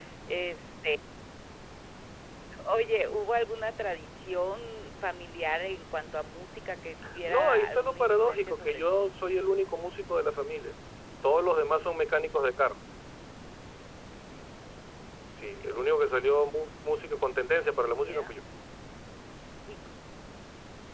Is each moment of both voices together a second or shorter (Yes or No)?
No